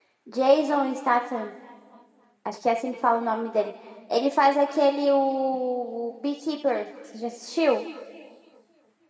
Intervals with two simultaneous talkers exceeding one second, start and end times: none

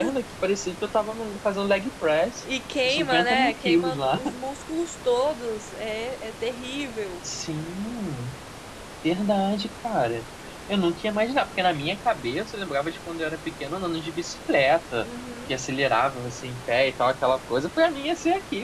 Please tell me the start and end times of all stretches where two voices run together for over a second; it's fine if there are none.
2.9-4.2

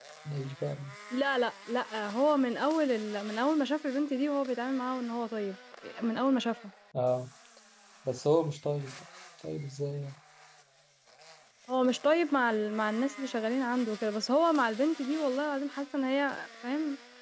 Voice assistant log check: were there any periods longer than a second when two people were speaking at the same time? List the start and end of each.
none

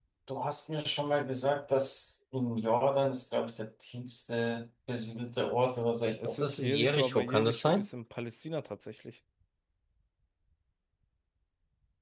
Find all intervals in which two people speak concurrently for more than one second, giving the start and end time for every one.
6.1-7.9

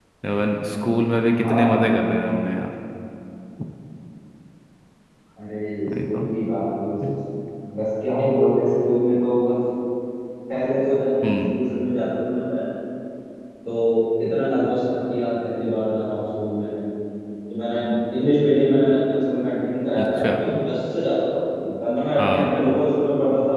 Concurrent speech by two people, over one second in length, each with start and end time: none

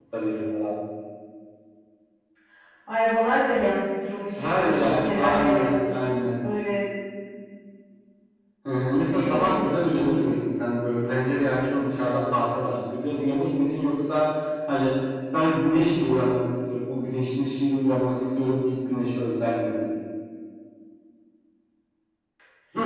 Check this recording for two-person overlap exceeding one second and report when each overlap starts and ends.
4.4-5.7

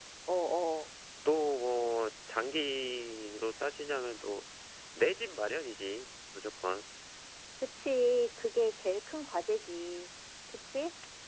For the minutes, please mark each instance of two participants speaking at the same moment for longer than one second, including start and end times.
none

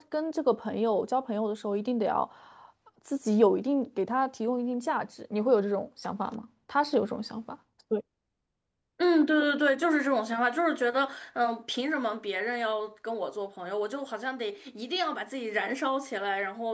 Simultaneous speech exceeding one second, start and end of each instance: none

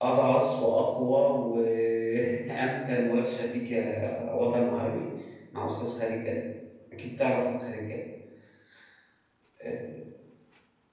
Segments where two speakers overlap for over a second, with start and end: none

